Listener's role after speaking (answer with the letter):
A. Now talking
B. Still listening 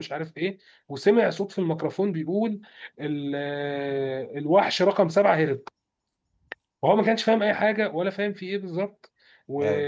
B